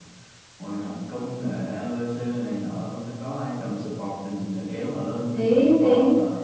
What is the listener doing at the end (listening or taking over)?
taking over